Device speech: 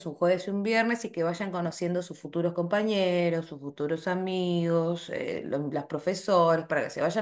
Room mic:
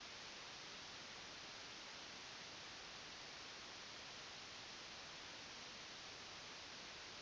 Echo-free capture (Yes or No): Yes